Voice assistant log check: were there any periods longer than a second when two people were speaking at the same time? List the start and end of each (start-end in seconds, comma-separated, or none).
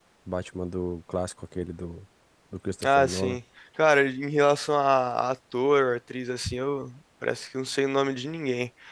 none